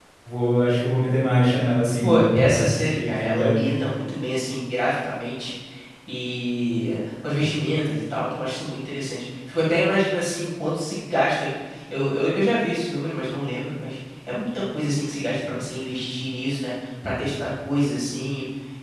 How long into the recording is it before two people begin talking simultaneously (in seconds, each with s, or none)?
2.0 s